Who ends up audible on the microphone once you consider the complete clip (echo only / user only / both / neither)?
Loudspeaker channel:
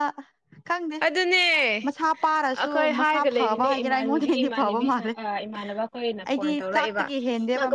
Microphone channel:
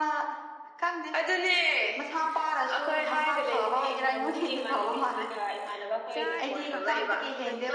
both